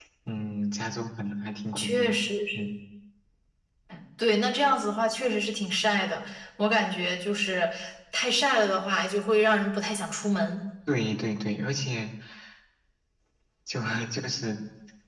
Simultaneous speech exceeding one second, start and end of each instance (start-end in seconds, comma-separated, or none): none